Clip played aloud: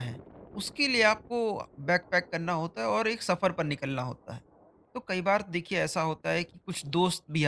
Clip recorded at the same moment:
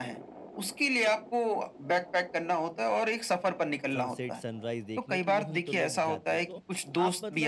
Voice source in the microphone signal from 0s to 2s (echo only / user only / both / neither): echo only